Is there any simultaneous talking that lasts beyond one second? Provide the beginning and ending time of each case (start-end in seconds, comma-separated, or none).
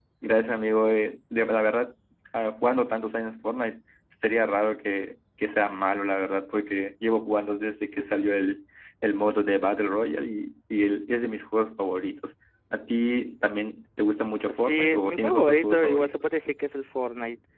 14.5-16.2